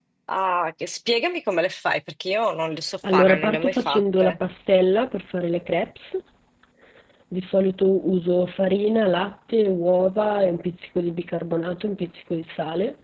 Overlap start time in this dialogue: 3.0 s

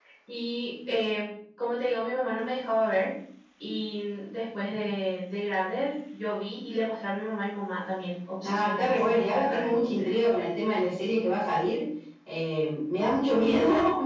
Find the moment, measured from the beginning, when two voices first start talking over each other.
8.4 s

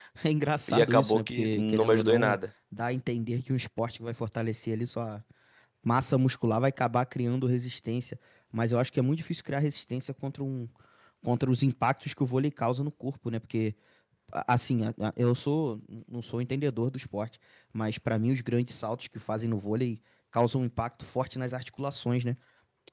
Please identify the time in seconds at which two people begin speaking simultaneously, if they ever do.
0.7 s

